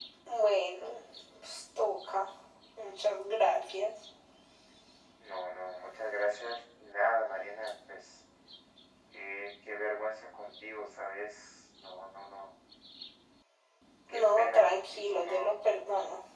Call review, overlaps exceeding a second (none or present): present